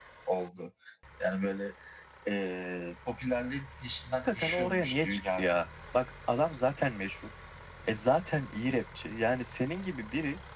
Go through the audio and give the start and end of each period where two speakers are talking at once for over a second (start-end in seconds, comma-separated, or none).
4.2-5.6